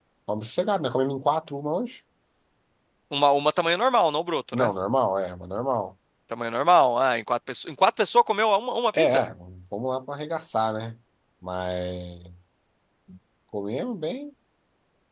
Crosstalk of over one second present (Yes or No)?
No